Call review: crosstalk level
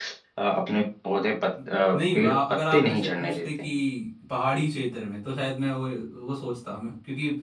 present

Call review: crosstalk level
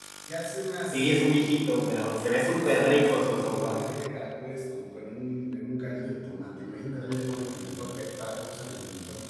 present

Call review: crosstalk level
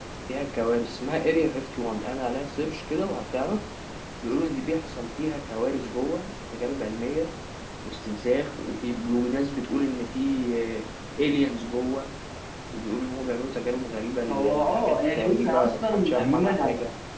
present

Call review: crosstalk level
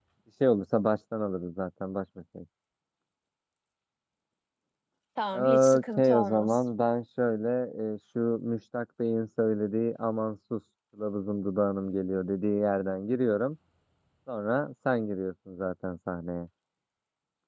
present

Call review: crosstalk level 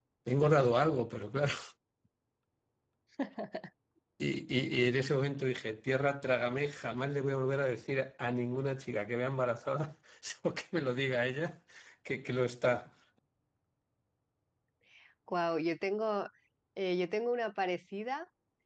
none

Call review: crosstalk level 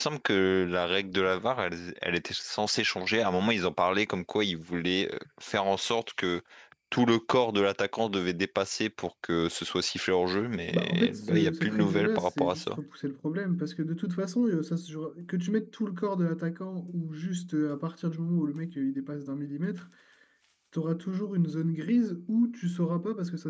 present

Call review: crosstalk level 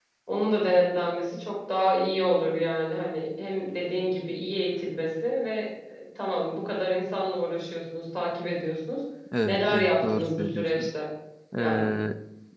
present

